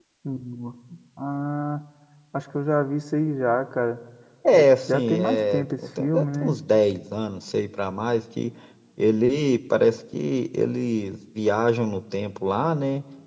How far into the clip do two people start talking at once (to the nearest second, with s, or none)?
5 s